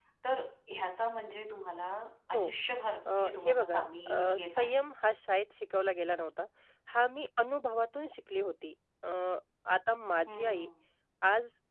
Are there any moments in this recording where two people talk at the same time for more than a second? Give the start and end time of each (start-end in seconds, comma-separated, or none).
3.2-4.8